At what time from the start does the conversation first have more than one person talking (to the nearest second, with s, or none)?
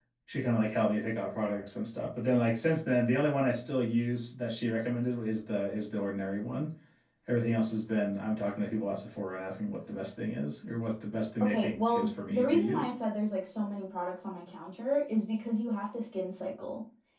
11 s